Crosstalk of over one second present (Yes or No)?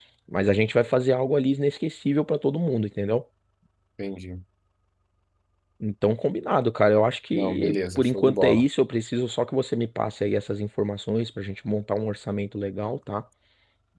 Yes